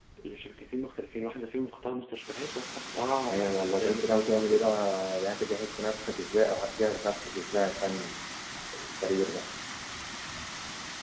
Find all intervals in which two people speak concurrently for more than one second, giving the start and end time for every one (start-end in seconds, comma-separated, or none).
3.0-4.7